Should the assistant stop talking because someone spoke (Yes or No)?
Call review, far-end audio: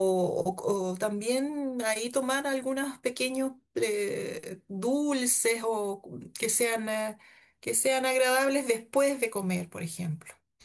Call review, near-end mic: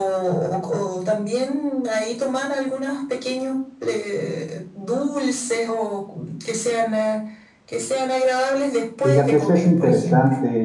Yes